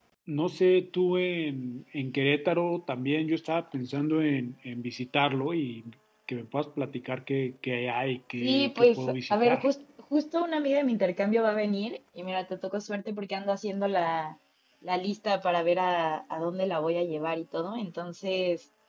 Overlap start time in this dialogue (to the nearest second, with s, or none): 8 s